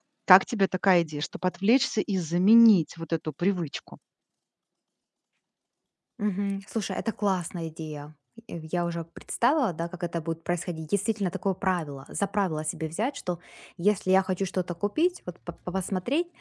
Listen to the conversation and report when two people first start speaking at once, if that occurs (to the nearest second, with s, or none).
none